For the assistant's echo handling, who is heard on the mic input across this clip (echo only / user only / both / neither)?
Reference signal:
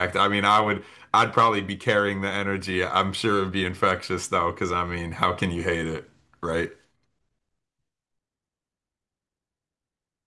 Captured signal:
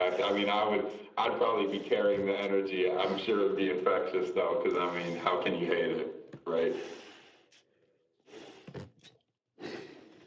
echo only